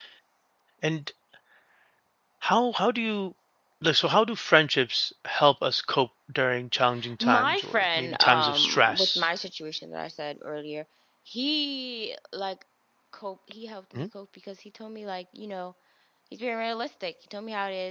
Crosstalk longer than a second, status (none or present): present